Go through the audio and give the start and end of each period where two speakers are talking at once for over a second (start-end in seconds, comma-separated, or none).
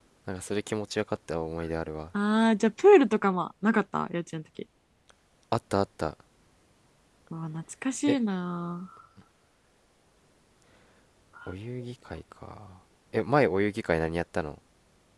none